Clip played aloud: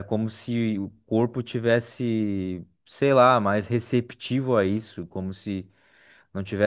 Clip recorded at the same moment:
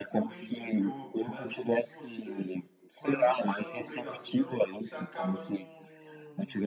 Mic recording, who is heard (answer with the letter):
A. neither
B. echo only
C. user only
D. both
D